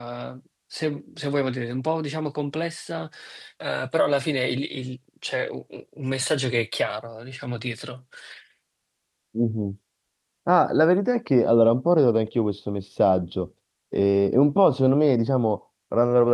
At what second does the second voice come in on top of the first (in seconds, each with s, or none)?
none